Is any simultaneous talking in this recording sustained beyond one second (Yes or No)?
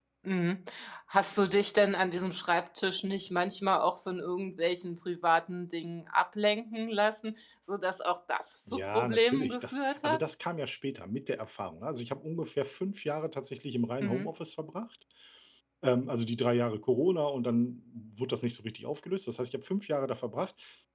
Yes